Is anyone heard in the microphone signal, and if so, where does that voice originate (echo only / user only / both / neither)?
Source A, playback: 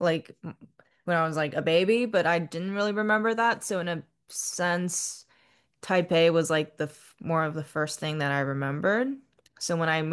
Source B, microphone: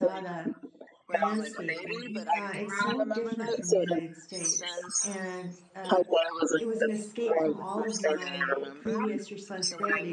both